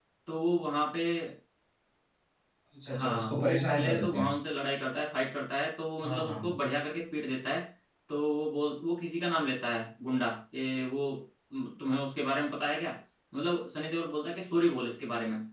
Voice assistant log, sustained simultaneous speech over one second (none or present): present